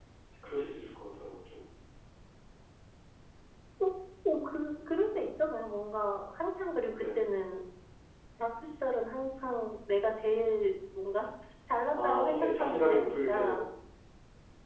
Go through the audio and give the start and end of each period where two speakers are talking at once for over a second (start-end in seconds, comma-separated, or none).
11.9-13.6